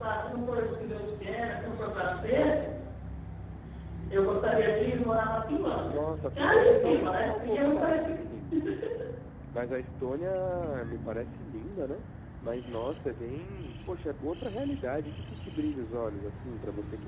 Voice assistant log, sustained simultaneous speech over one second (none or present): present